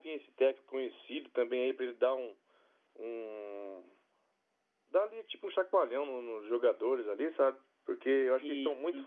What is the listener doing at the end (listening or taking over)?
listening